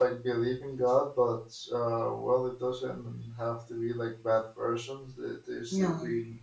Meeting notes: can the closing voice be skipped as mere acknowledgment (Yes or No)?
Yes